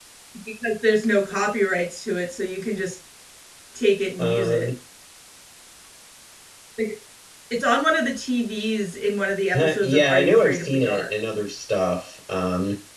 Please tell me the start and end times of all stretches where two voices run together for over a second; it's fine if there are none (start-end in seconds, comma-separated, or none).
9.5-11.1